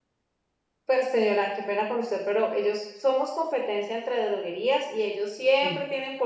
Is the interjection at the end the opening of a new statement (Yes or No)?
No